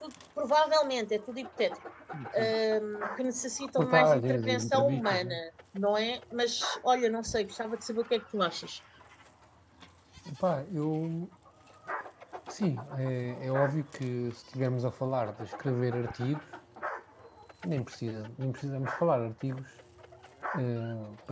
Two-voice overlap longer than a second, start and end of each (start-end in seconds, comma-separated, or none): 3.8-5.3